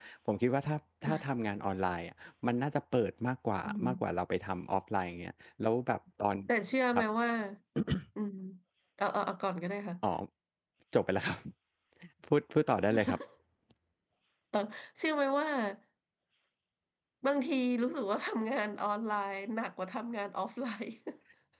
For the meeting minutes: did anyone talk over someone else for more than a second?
No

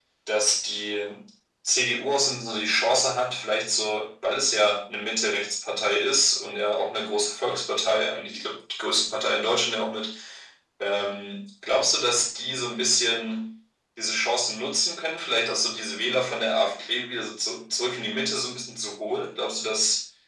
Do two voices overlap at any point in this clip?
No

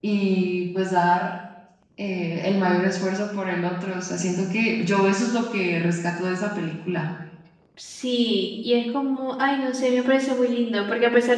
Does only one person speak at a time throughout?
Yes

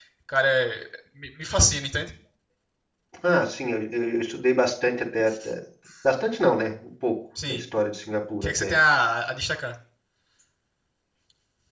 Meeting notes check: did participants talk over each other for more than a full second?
No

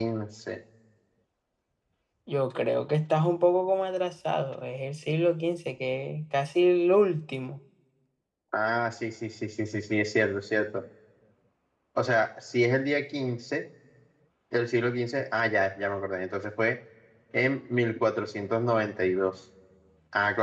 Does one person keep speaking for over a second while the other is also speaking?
No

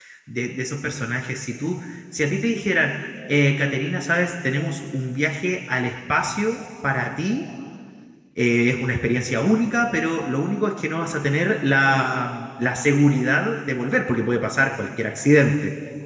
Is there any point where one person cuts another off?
No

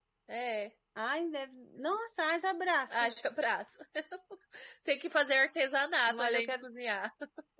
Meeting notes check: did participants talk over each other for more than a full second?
No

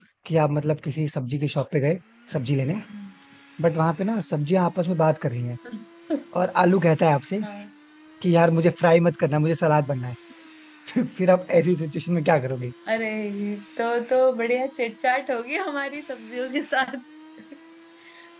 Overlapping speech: No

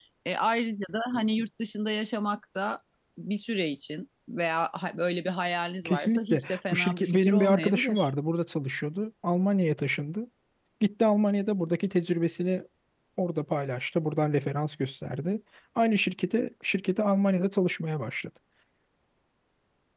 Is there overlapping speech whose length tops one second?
Yes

